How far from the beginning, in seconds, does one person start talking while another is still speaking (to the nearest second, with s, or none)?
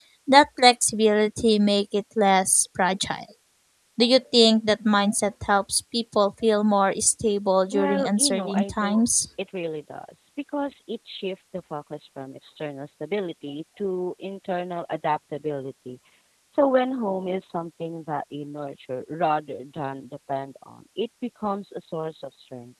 8 s